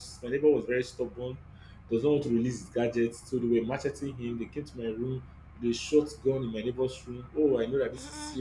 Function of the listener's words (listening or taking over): listening